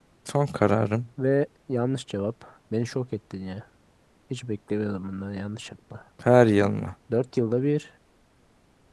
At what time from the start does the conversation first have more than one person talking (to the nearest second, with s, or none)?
none